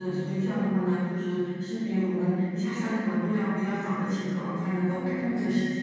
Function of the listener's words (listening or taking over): taking over